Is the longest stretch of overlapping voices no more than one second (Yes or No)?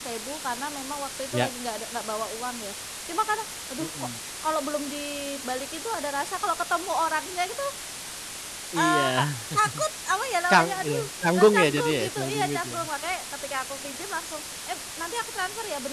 No